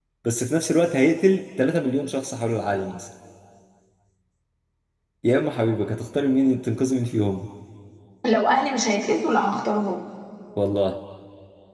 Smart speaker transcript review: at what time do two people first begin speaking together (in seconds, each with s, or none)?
none